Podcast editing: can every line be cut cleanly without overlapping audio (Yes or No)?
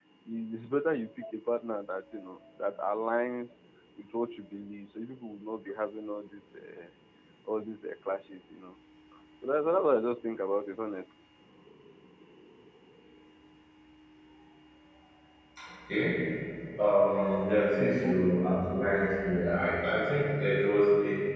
Yes